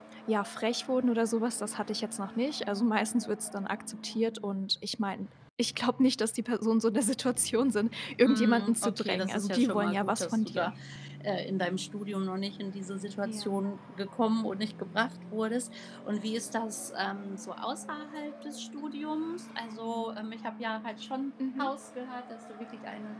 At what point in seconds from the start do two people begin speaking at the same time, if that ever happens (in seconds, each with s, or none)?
8.2 s